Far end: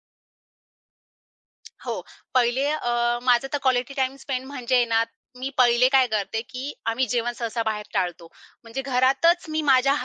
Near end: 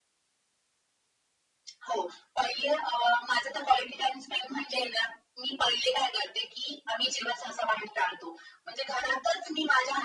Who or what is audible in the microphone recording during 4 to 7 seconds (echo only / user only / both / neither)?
echo only